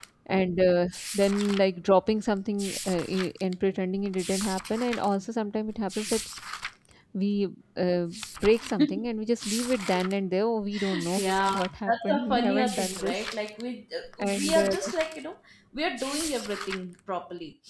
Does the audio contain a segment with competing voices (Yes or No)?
Yes